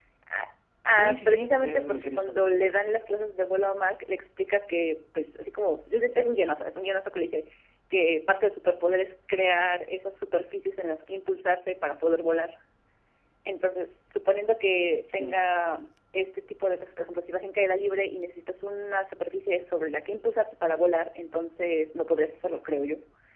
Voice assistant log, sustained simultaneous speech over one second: present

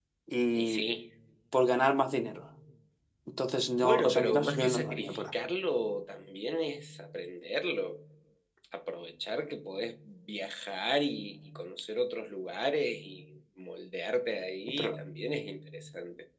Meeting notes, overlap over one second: present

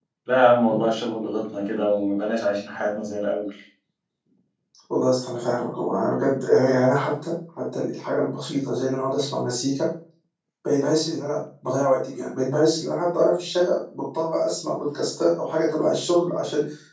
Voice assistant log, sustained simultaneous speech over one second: none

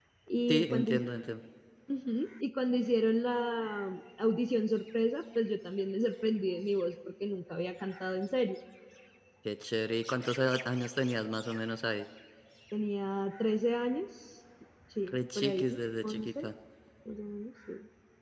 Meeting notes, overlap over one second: present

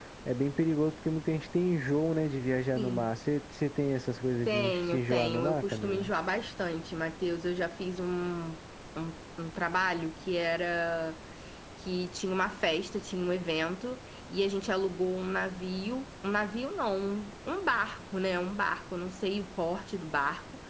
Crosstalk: present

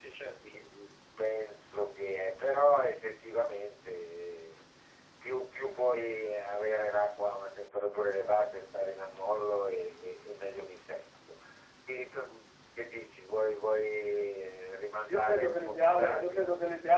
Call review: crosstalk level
present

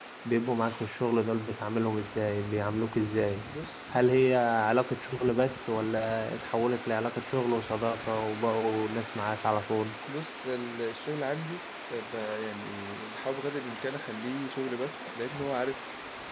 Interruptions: none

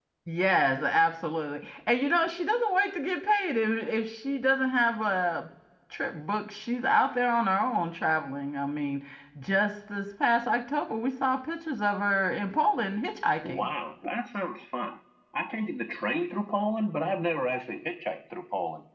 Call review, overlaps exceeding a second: none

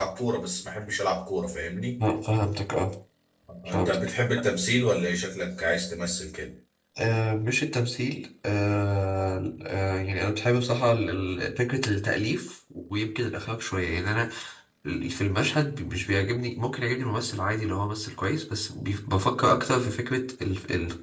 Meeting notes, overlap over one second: none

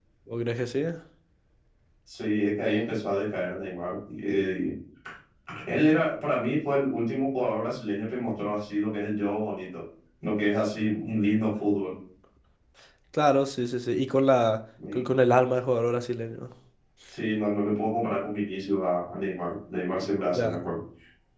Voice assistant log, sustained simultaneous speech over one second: none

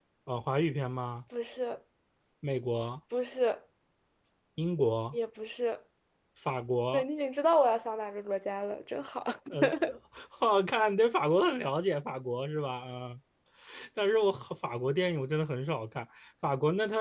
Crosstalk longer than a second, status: none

